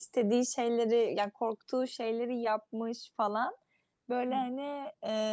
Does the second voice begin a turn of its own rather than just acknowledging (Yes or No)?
No